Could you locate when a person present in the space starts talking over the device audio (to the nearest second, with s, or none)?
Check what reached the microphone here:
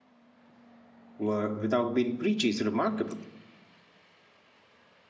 1 s